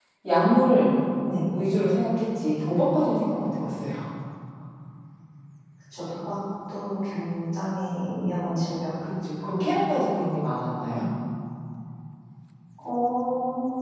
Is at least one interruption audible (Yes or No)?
No